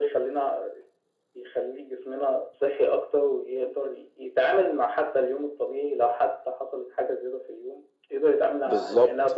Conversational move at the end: taking over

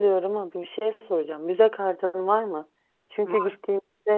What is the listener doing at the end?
listening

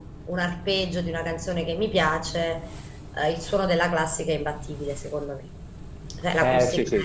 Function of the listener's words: taking over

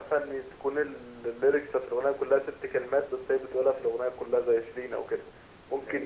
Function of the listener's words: listening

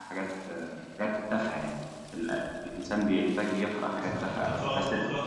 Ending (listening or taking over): taking over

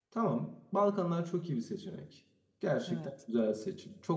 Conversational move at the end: listening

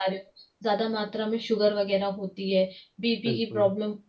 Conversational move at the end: listening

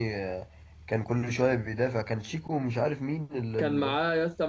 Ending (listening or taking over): taking over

